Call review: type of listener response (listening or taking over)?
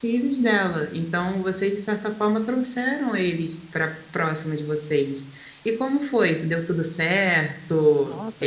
taking over